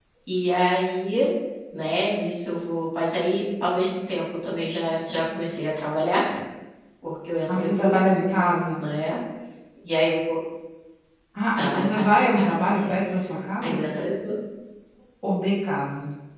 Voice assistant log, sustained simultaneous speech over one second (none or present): present